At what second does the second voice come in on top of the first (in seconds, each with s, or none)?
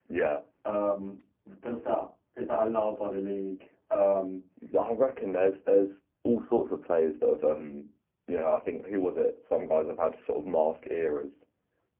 none